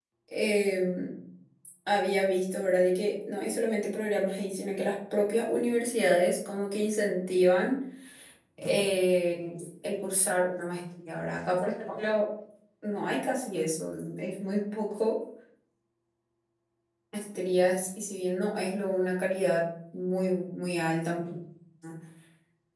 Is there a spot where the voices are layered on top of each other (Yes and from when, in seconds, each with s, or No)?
No